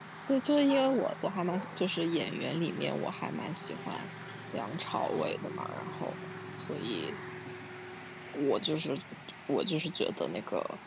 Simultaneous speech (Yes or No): No